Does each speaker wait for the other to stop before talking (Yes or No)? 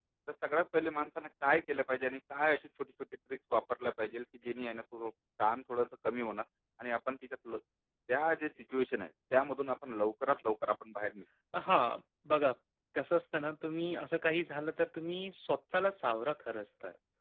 Yes